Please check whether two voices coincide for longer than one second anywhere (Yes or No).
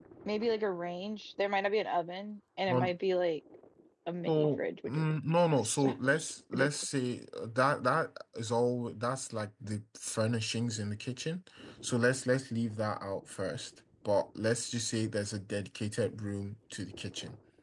Yes